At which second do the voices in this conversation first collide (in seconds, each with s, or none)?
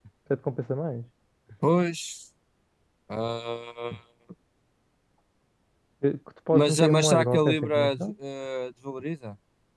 6.5 s